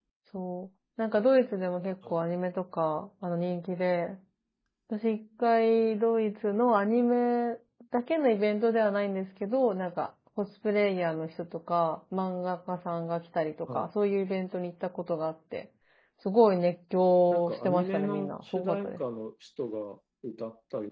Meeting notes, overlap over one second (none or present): present